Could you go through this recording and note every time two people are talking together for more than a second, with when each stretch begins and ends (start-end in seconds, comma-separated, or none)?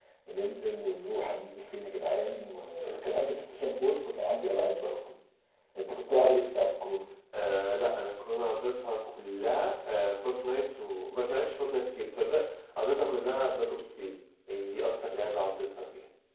none